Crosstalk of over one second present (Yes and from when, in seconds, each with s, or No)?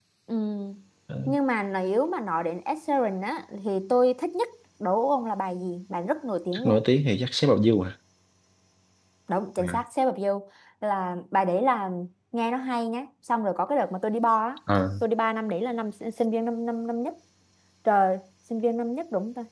No